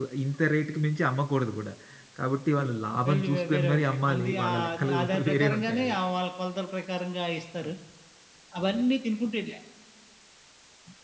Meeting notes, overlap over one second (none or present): present